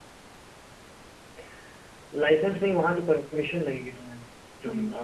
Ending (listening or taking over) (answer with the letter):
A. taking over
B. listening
B